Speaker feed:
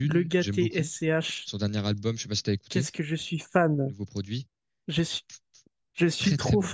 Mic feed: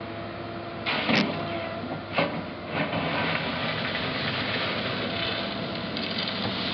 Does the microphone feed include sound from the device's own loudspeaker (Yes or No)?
No